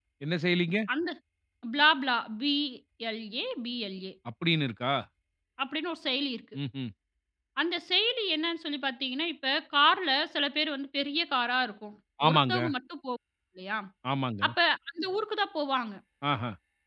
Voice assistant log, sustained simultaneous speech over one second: none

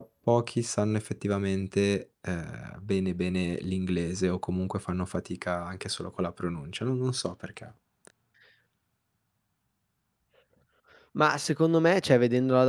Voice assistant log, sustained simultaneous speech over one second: none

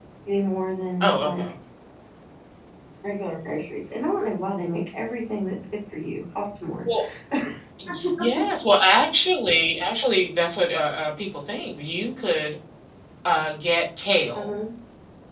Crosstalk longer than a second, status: none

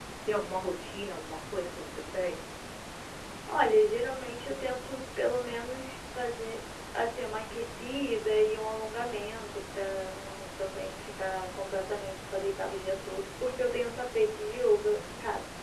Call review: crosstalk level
none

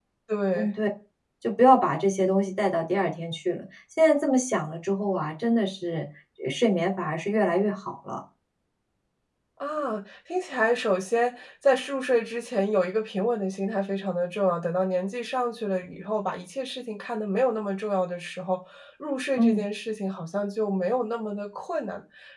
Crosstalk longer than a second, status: none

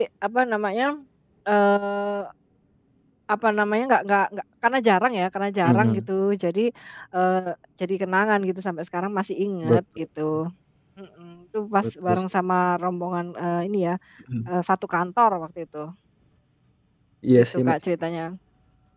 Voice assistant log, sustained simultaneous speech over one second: none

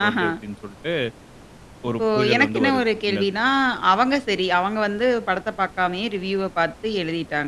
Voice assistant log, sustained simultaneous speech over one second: present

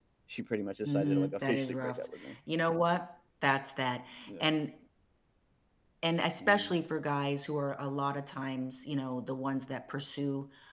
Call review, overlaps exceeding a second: present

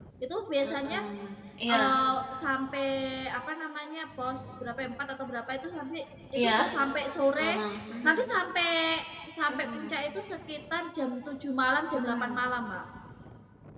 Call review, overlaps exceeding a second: none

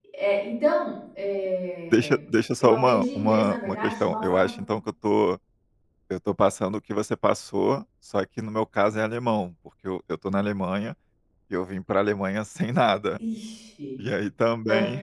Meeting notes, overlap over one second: present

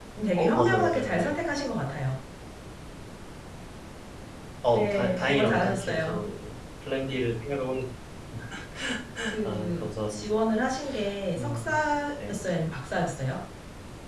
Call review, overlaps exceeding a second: present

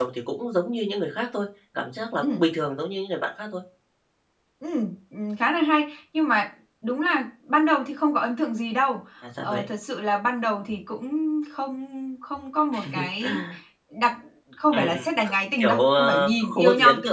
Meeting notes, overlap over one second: present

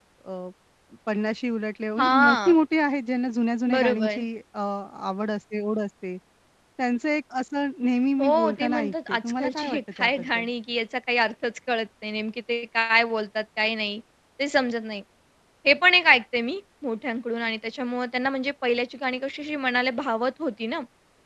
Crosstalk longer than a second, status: present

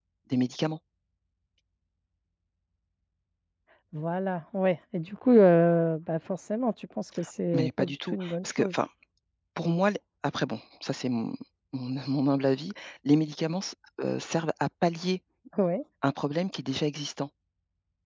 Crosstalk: present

